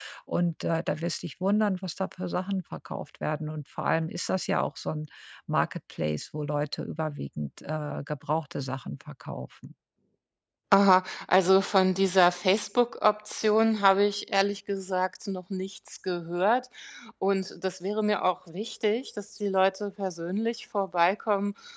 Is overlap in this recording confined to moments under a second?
Yes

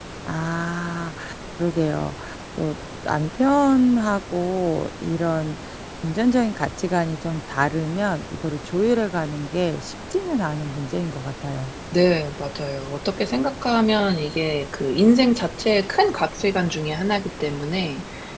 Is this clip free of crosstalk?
Yes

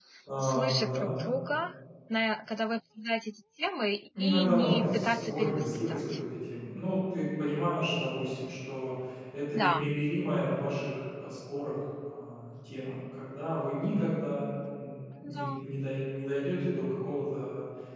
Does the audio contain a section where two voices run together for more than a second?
Yes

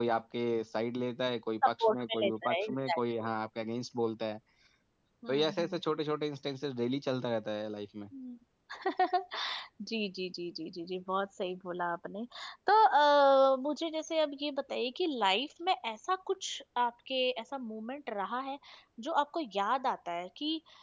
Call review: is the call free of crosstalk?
No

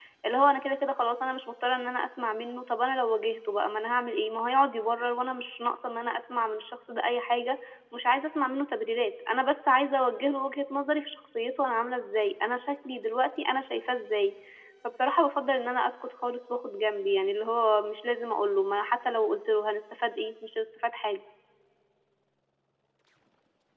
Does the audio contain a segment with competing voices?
No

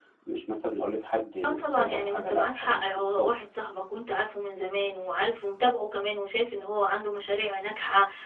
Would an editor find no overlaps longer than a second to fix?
No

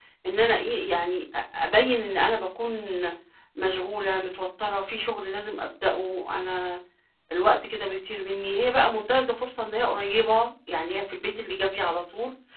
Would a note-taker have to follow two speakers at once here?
No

